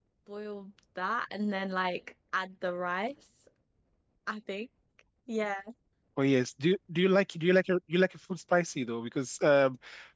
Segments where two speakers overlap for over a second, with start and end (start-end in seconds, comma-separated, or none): none